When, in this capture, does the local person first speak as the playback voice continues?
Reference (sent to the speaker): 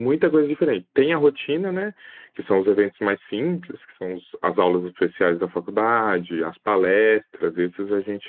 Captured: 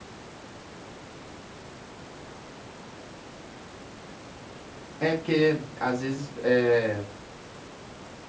5.0 s

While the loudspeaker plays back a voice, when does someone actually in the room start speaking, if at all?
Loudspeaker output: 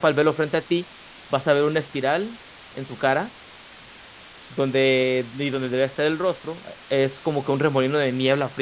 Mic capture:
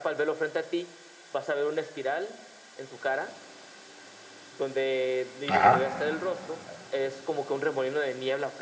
5.5 s

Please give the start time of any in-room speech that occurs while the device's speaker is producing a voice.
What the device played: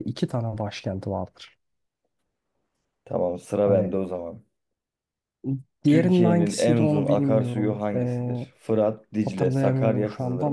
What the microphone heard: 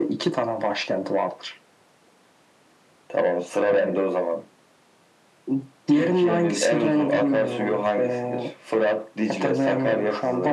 none

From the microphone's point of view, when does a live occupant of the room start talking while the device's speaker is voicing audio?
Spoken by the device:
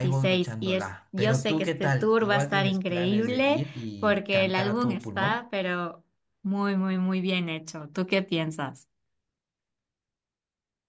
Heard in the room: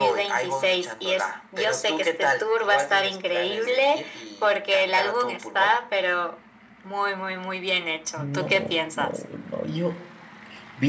8.1 s

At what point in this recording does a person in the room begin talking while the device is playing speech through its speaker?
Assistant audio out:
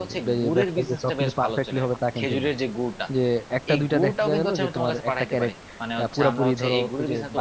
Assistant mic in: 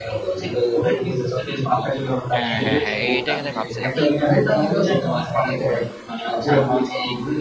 2.4 s

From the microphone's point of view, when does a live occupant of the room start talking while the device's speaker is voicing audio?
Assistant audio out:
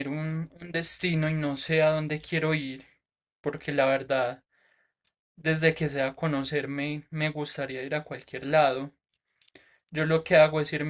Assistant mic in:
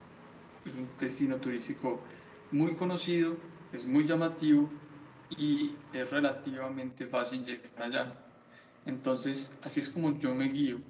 0.6 s

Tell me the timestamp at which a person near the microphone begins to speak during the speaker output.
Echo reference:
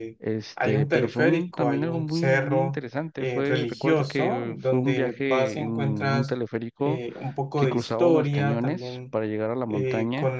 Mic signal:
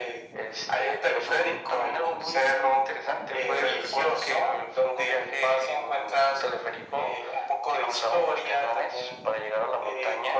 none

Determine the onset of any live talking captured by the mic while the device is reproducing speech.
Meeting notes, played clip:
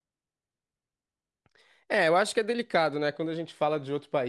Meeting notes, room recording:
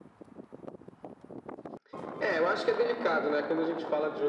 none

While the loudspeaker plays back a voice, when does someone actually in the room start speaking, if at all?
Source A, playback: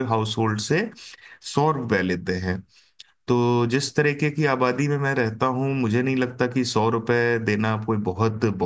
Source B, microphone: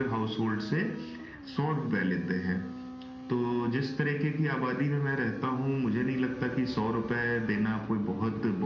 none

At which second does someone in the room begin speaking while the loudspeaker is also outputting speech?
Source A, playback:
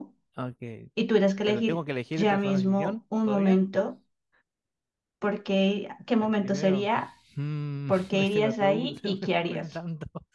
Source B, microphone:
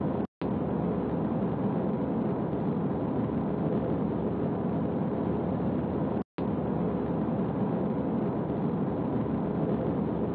none

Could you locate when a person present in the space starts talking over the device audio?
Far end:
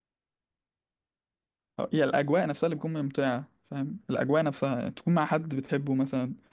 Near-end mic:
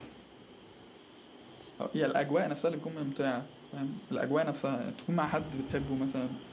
none

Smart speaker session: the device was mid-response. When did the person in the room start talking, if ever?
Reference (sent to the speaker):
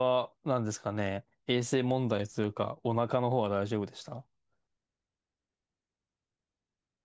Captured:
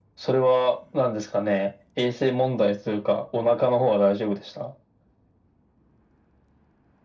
none

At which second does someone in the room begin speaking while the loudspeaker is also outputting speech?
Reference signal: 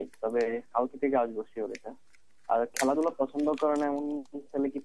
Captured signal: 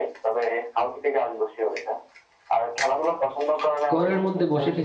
3.9 s

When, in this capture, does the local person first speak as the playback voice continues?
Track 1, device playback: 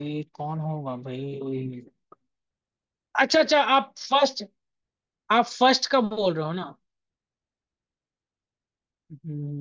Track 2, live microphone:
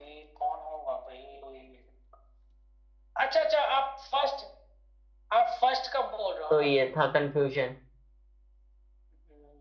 6.5 s

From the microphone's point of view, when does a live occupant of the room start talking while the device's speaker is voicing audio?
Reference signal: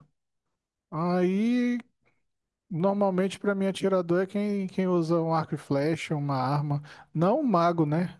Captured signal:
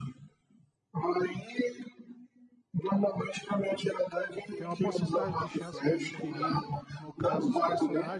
4.5 s

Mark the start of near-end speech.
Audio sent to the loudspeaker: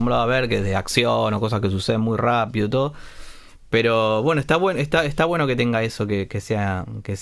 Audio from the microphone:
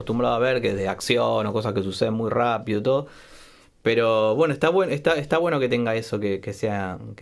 none

